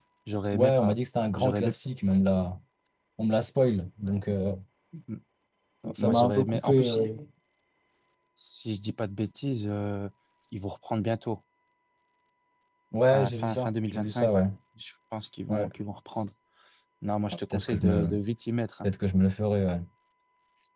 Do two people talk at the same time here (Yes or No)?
Yes